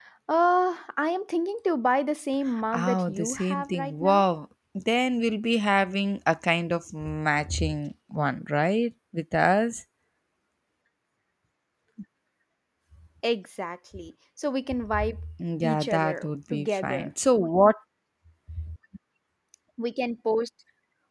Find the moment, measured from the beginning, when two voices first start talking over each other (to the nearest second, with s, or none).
3 s